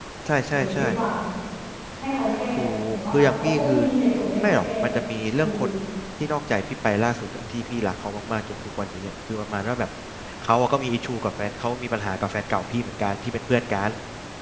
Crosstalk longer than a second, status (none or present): present